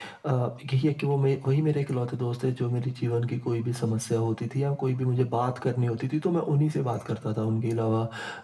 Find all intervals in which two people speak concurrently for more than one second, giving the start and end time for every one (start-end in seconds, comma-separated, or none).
none